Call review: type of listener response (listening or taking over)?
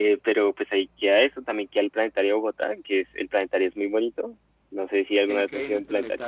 taking over